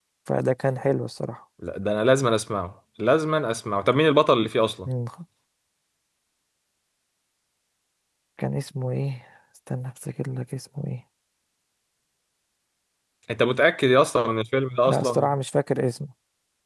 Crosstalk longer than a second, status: none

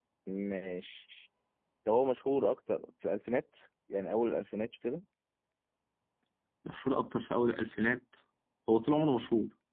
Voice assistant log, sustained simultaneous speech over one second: none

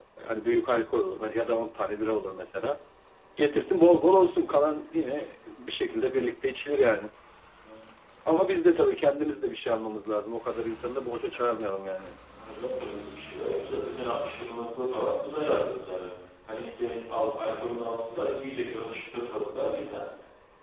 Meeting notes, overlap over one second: none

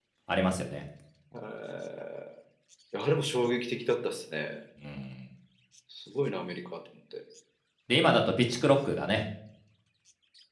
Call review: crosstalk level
none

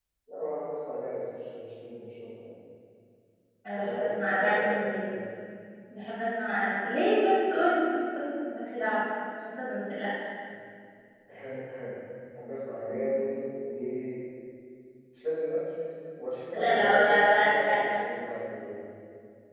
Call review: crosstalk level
present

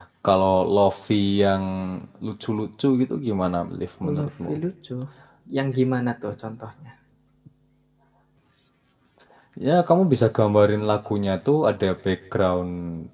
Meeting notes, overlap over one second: none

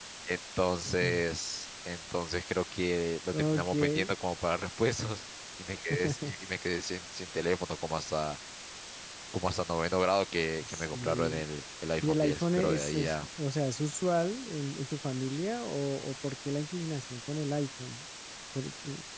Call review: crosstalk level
present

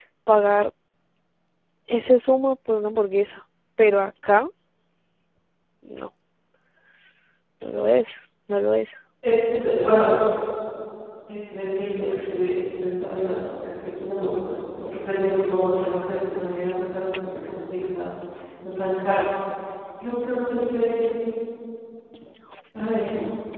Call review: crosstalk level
none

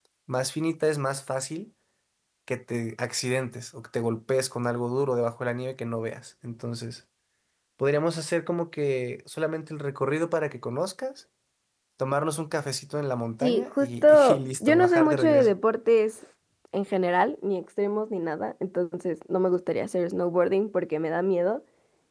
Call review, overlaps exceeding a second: present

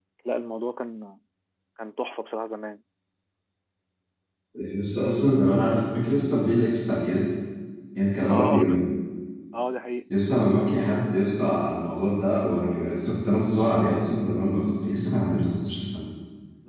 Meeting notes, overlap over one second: none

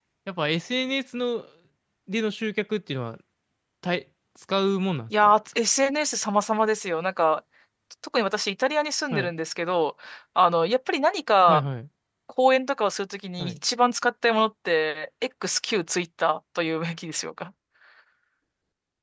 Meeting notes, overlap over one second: none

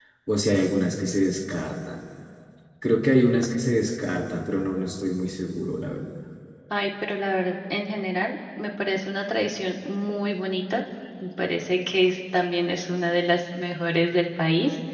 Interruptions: none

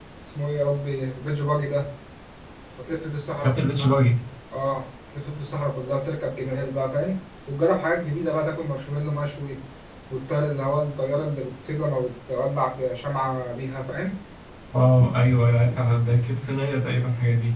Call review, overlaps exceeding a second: none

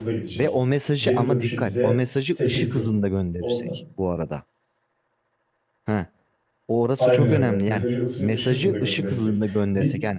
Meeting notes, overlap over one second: present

